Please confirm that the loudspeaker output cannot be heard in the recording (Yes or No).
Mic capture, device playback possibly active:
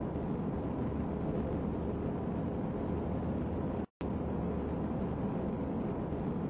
Yes